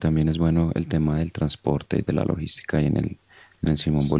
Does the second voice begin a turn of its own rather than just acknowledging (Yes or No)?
Yes